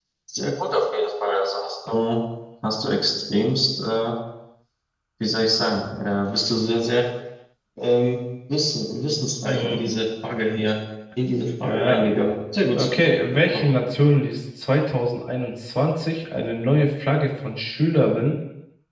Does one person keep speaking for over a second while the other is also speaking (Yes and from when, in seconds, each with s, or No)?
No